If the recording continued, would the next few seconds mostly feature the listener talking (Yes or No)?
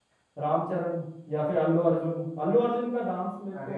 No